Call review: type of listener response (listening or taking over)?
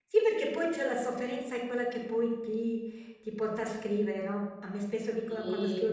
listening